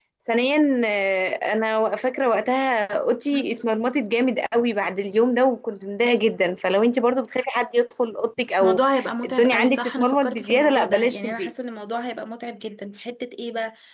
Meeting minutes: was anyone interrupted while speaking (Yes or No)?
Yes